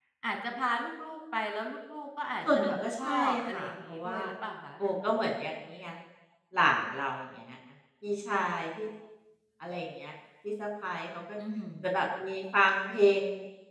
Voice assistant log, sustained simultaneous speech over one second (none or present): present